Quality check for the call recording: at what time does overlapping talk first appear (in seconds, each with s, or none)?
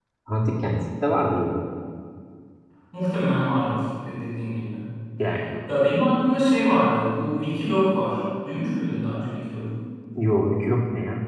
none